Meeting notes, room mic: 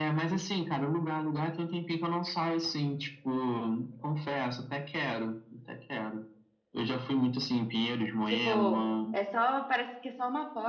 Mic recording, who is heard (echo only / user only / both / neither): both